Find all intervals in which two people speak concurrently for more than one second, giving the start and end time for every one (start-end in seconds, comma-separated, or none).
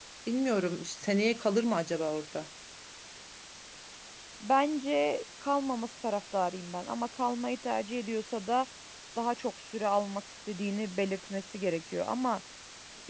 none